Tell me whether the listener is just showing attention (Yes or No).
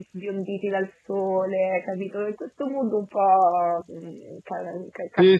No